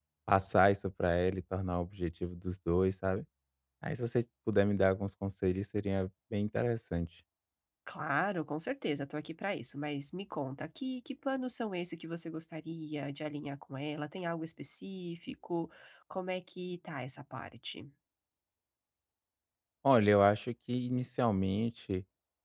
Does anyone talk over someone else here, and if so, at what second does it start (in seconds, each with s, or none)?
none